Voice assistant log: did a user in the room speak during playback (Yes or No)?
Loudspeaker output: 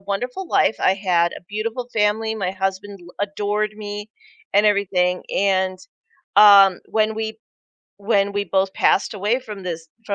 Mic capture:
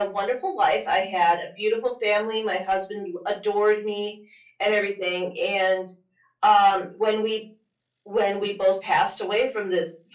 No